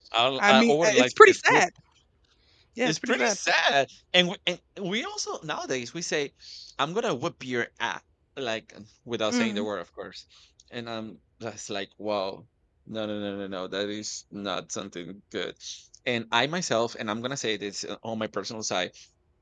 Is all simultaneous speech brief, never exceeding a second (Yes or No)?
No